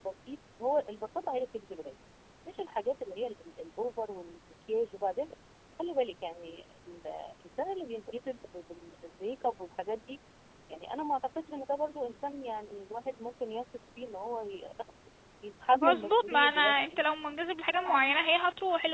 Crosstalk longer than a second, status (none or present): present